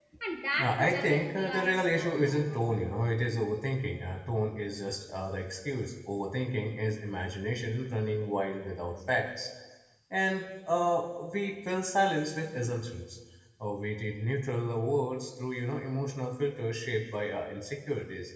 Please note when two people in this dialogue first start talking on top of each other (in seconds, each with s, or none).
0.6 s